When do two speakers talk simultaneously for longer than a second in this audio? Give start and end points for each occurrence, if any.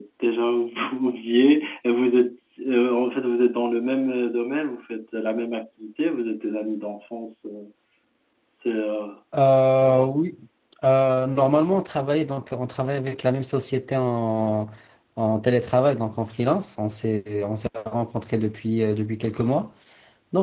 none

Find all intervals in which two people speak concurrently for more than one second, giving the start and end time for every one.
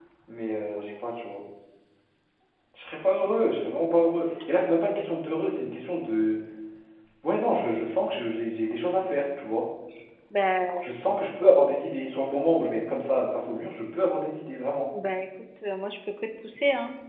none

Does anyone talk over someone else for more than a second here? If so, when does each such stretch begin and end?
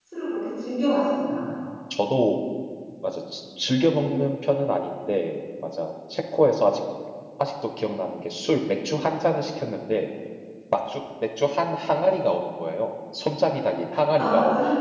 none

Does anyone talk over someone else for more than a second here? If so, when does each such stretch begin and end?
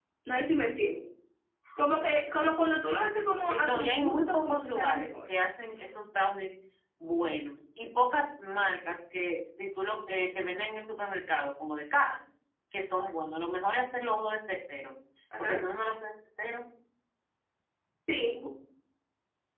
3.5-5.2

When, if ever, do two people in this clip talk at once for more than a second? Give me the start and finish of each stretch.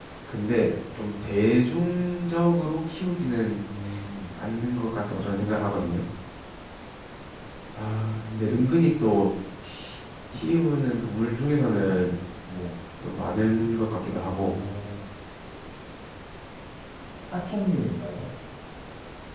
none

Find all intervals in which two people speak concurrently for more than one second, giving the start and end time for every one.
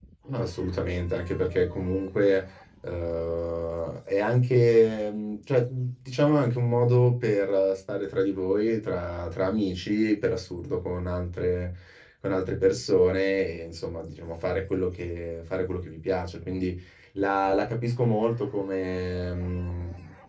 none

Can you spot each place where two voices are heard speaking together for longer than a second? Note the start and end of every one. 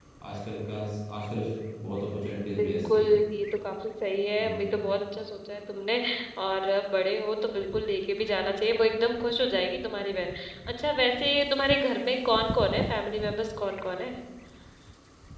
none

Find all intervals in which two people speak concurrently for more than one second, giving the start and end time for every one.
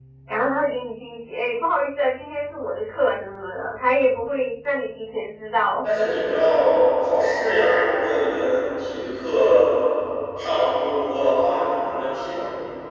none

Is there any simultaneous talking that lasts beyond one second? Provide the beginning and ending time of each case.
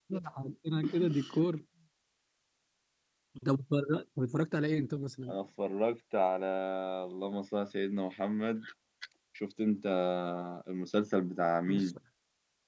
none

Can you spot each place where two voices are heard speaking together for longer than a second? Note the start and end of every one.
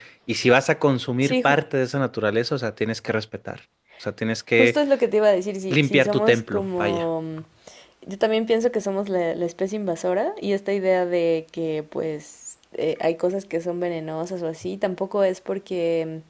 5.7-7.0

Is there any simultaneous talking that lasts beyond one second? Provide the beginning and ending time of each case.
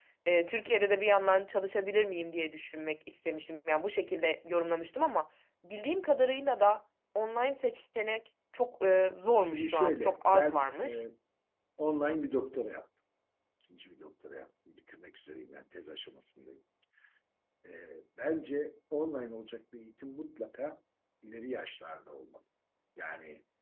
9.4-11.0

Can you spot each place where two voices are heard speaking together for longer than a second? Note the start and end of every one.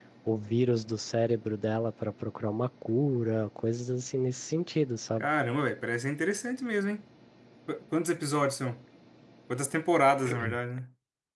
none

